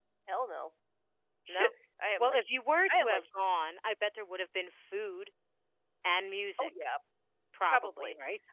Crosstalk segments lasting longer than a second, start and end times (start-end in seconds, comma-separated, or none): none